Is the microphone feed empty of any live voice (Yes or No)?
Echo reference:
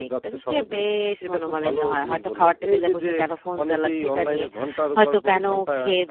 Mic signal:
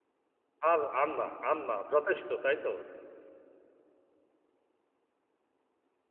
No